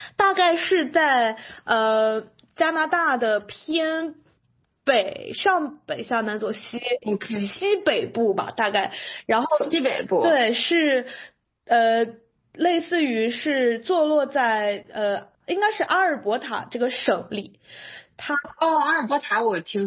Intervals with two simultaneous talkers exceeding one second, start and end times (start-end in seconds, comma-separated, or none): none